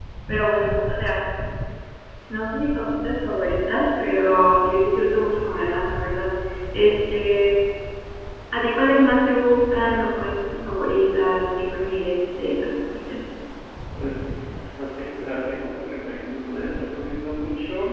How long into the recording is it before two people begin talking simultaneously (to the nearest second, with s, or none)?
none